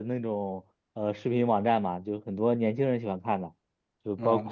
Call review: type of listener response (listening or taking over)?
taking over